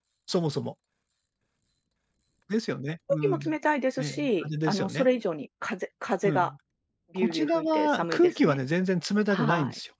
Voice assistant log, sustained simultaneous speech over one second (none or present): present